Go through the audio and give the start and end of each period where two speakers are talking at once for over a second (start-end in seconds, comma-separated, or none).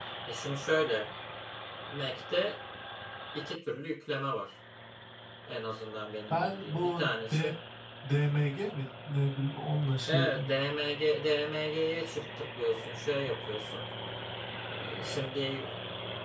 6.3-7.5